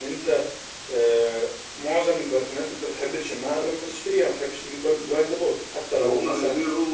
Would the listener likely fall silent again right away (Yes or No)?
No